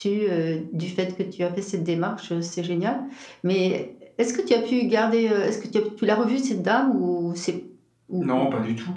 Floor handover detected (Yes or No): Yes